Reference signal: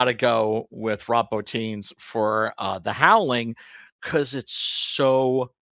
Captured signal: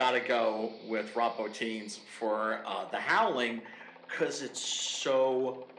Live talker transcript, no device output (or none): none